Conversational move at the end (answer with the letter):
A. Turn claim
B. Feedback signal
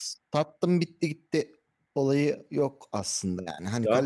A